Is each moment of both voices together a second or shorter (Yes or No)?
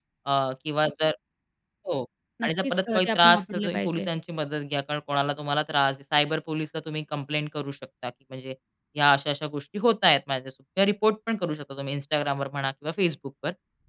No